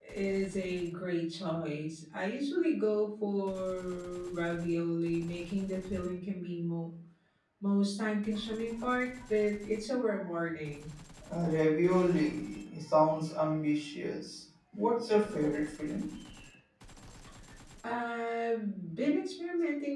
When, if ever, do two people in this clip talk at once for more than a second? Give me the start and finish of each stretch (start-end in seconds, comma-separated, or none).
none